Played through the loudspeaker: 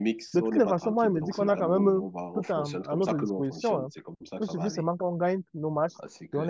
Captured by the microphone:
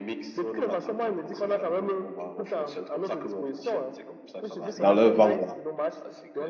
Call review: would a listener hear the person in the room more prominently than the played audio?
Yes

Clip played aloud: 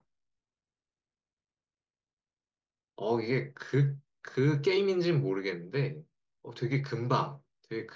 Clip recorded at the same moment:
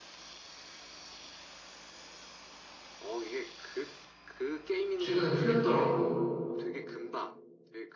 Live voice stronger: Yes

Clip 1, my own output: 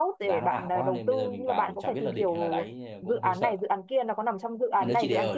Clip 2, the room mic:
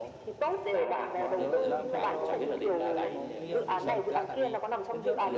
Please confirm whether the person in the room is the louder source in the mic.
No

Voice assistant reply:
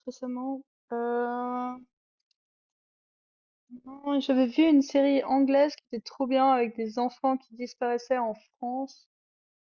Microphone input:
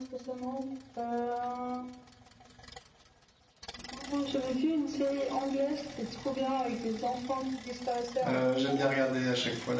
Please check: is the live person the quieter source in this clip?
No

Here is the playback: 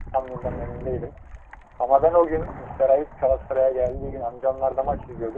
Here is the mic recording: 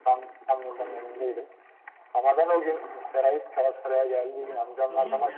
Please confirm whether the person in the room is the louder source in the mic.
No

